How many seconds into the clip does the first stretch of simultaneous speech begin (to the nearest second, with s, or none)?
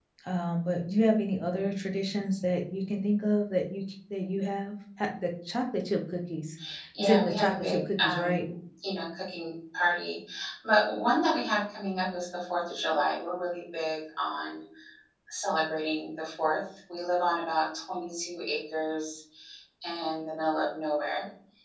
7 s